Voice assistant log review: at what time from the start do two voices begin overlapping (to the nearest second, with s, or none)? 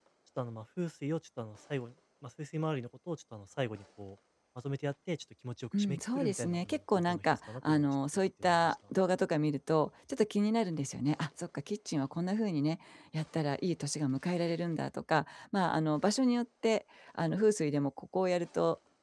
6 s